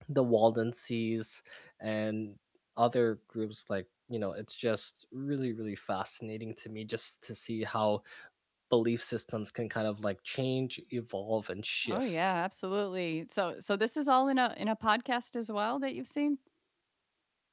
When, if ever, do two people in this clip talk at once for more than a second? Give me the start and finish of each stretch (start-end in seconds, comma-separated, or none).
none